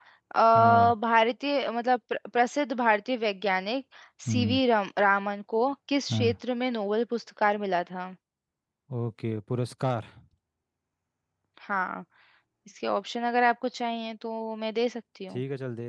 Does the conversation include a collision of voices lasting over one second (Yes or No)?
No